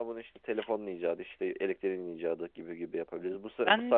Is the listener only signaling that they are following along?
Yes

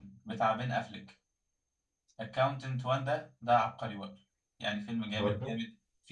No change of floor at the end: Yes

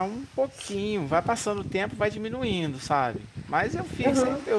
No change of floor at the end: Yes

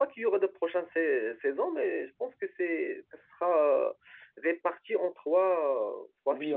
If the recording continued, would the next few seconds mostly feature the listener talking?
Yes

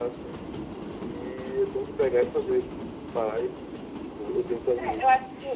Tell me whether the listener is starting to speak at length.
Yes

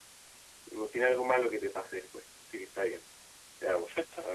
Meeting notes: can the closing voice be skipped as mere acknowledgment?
Yes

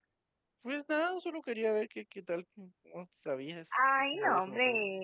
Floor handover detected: Yes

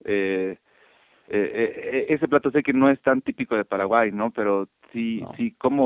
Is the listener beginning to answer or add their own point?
No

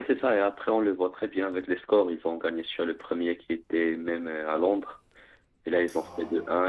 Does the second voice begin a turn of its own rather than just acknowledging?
No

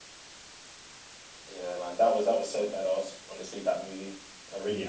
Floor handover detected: Yes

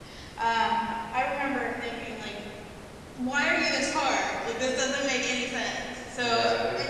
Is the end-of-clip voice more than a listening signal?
Yes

